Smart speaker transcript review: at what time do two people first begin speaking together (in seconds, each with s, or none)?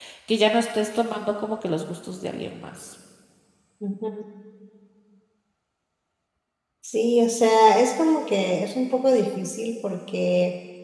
none